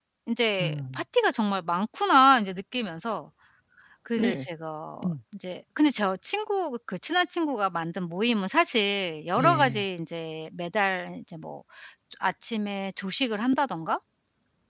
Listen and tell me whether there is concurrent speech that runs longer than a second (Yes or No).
No